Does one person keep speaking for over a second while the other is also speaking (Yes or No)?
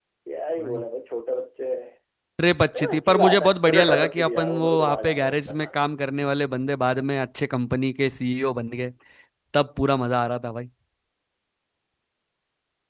Yes